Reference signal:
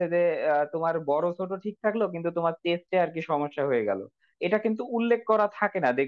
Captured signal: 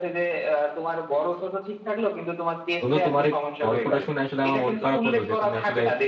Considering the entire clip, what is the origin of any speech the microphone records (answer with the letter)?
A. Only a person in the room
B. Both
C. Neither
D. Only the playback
B